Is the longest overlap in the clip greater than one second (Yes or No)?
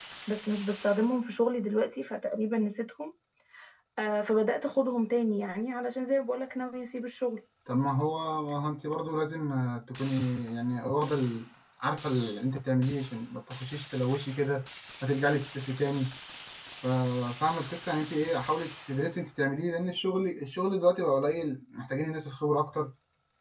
No